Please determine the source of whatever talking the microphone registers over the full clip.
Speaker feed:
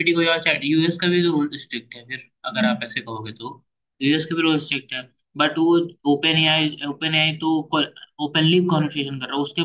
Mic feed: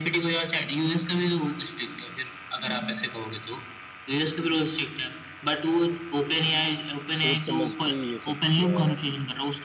both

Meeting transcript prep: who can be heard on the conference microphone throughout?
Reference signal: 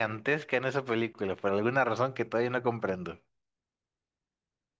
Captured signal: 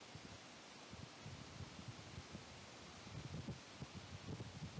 neither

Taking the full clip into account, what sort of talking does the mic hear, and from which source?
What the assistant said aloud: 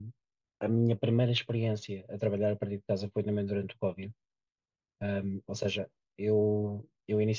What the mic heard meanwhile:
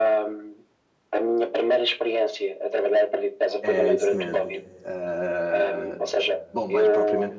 both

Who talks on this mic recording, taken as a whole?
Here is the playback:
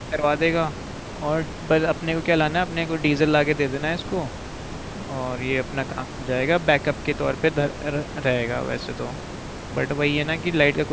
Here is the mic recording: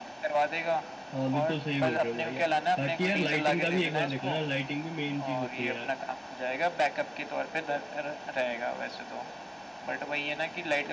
both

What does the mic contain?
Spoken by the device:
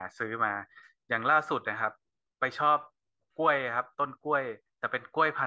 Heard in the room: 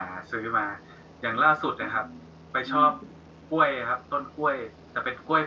both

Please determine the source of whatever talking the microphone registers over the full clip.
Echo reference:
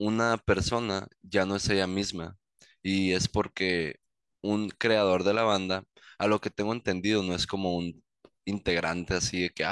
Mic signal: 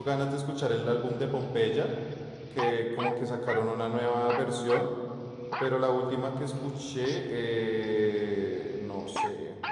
user only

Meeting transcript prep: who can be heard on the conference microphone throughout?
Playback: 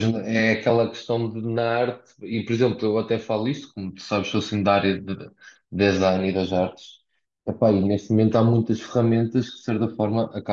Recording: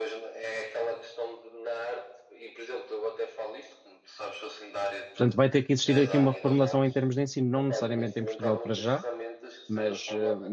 both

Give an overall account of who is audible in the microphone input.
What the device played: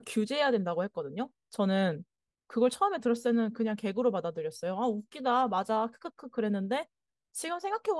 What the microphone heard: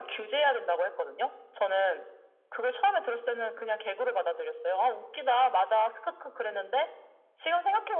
echo only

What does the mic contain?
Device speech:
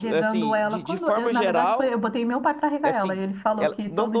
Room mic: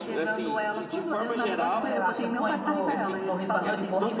both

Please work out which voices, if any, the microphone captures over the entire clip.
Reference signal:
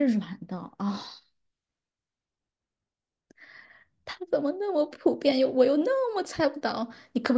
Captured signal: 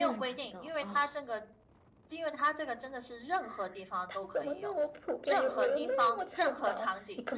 both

